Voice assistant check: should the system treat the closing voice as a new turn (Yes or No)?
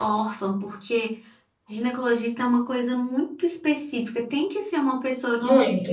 No